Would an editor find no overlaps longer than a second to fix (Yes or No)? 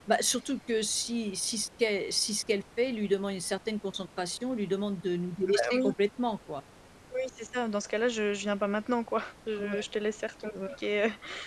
Yes